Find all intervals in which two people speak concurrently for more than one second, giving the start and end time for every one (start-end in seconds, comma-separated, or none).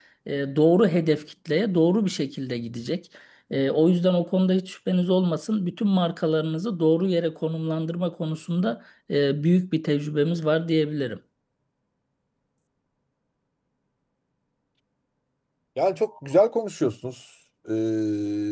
none